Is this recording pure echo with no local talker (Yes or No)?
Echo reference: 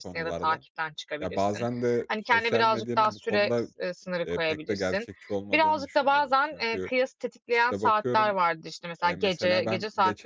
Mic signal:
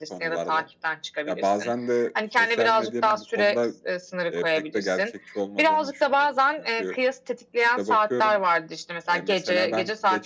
Yes